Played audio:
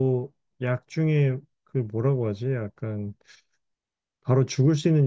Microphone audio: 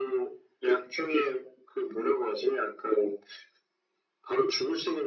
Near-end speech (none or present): none